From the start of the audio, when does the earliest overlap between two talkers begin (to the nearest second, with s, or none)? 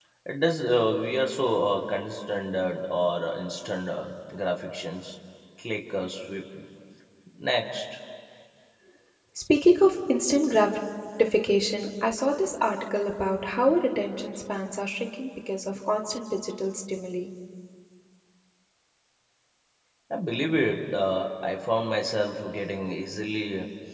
none